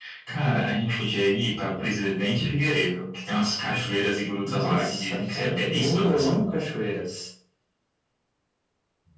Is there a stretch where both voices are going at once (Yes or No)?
Yes